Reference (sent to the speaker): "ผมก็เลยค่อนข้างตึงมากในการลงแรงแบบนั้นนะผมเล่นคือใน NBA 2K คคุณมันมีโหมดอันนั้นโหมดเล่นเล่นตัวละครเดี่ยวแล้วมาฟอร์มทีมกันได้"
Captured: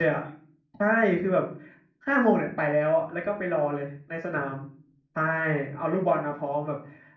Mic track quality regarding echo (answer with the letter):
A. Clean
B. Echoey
A